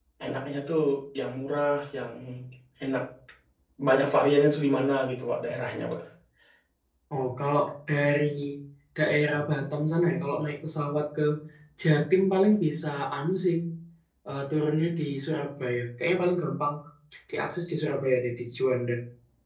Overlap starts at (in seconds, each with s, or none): none